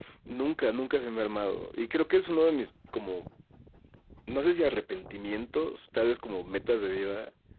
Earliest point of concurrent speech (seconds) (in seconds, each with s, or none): none